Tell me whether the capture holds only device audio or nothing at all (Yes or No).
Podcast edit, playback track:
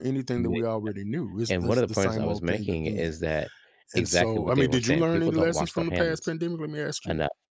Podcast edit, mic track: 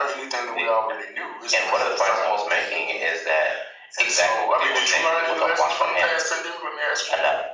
Yes